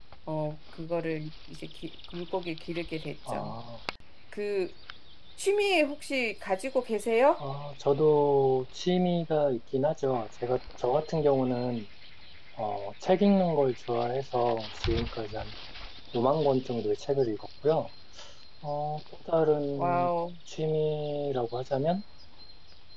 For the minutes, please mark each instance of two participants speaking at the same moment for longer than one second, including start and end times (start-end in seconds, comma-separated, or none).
none